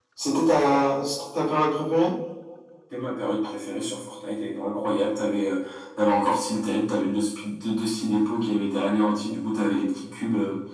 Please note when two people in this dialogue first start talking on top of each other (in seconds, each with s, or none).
none